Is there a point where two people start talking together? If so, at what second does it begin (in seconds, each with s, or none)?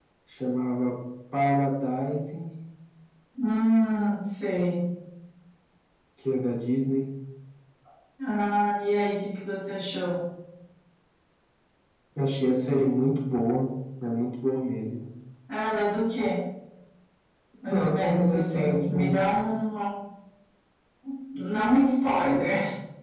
17.7 s